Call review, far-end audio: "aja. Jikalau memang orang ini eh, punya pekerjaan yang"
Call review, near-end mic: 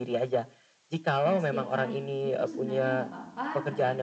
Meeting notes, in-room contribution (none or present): present